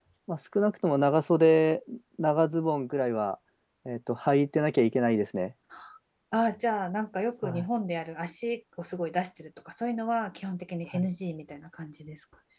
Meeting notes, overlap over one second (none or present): none